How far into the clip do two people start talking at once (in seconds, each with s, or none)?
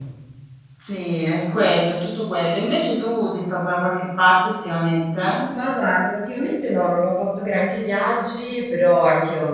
none